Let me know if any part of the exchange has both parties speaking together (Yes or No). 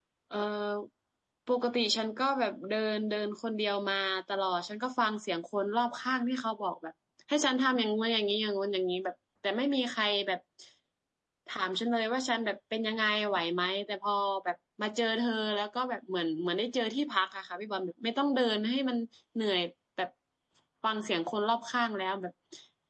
No